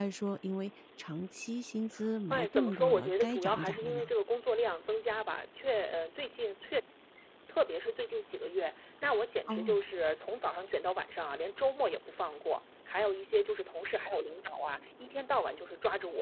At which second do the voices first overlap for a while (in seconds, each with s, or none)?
2.3 s